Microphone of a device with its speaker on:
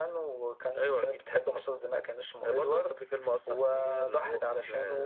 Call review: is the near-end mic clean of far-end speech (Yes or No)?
No